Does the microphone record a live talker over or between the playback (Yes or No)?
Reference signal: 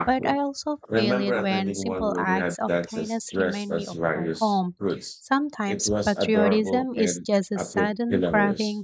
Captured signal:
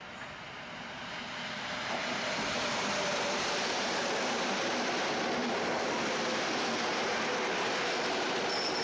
No